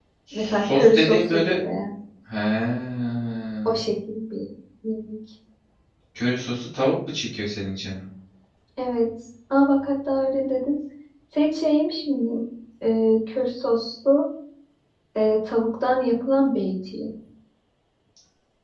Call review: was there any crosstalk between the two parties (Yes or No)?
Yes